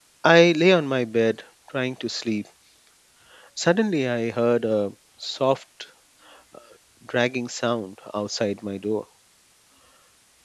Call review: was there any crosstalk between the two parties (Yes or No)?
No